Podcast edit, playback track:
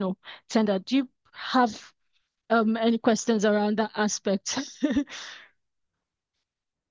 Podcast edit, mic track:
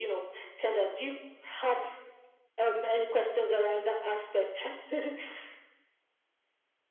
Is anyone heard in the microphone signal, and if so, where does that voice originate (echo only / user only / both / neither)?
echo only